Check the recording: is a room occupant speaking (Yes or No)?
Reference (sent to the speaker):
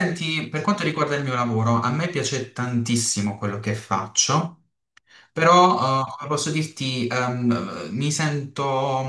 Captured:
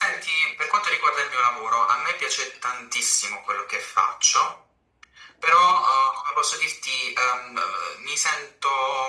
No